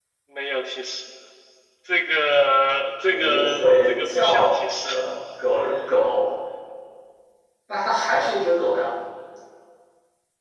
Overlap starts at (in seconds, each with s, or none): 3.1 s